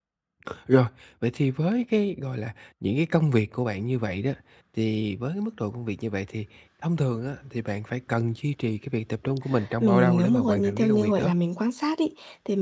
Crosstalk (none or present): present